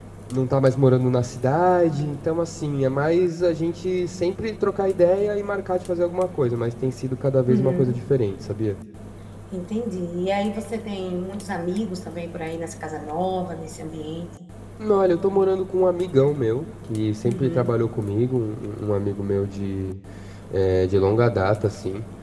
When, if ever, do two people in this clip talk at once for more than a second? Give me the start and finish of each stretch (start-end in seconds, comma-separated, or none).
none